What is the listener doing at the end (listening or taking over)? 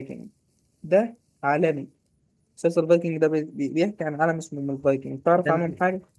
taking over